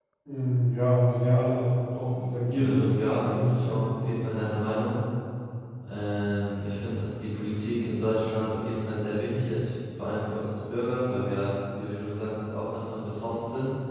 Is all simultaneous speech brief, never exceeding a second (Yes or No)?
No